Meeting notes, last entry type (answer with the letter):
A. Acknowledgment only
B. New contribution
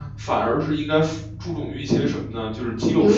A